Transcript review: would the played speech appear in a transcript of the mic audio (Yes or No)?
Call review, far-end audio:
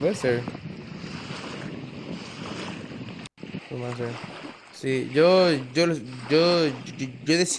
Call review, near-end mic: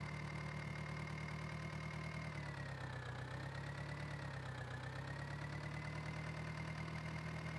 No